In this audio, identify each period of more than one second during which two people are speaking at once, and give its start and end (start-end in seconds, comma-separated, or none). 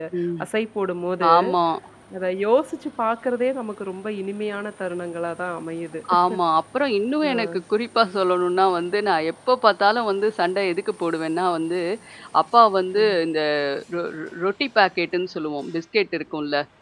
none